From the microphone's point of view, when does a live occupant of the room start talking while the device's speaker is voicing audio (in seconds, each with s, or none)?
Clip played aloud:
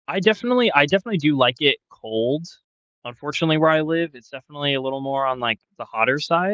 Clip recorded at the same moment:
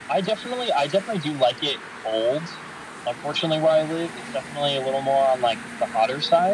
none